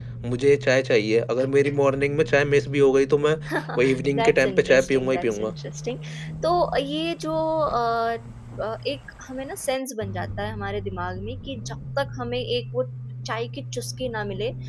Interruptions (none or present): present